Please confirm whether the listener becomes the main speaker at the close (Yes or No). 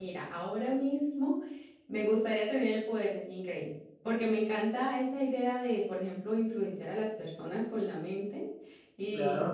No